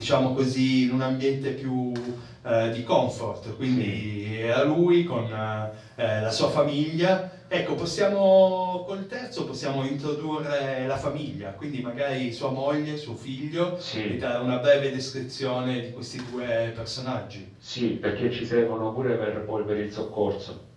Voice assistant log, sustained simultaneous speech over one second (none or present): none